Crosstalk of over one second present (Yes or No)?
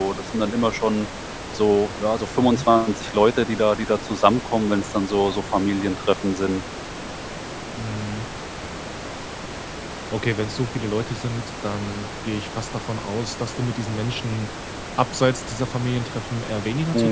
No